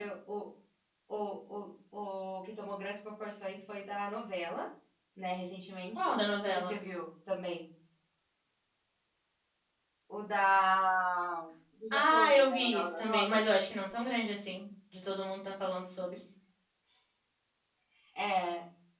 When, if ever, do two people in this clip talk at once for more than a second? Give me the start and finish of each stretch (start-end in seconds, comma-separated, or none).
11.9-13.2